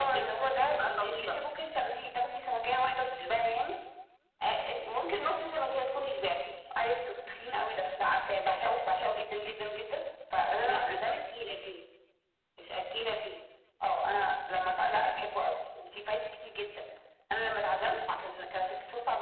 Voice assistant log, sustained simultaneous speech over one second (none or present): present